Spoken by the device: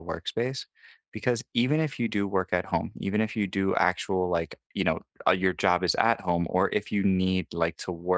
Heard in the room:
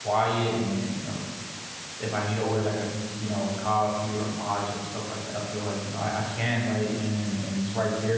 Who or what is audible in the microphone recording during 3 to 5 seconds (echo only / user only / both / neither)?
user only